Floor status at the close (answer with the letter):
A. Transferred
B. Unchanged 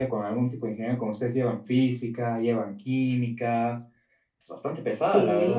A